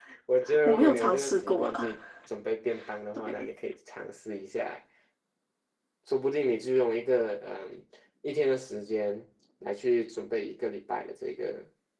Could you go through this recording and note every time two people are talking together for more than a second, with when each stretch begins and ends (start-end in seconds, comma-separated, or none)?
0.7-1.9